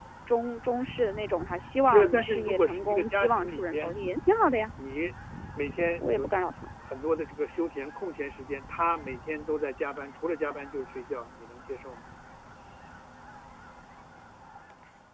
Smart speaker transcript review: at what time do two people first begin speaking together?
1.9 s

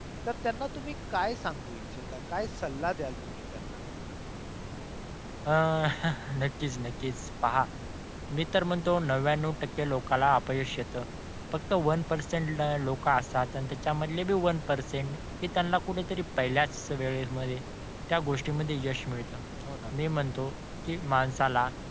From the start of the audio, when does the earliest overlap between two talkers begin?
none

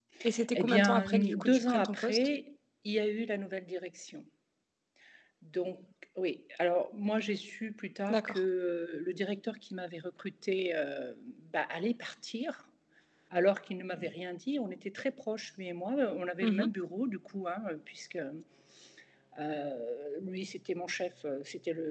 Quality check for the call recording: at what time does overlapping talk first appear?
0.5 s

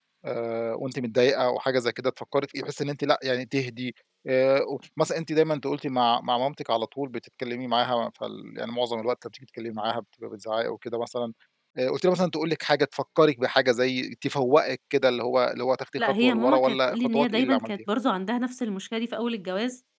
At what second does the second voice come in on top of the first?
16.0 s

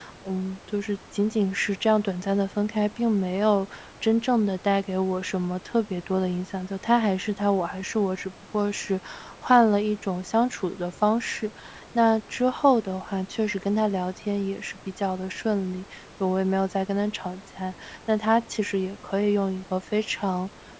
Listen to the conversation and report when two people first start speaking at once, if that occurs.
none

